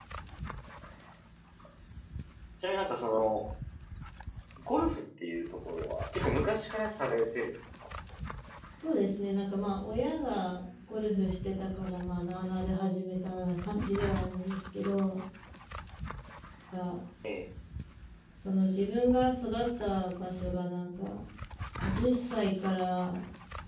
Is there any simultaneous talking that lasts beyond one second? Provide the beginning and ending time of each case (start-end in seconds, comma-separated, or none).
none